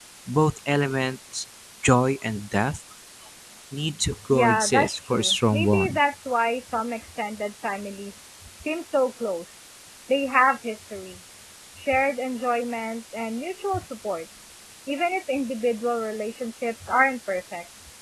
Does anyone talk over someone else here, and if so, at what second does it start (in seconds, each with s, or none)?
4.3 s